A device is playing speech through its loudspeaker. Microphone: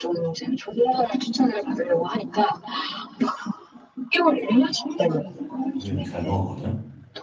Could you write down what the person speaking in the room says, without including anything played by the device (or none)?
우리는 잘 먹었거든.